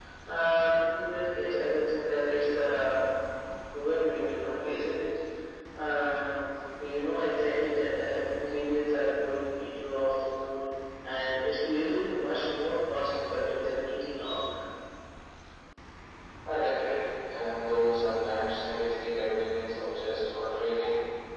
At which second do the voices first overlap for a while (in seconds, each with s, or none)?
none